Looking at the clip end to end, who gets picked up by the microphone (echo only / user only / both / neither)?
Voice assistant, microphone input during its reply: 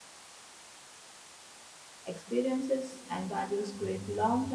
user only